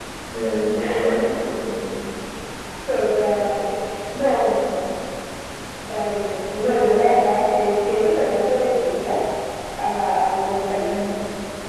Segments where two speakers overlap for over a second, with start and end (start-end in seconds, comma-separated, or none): none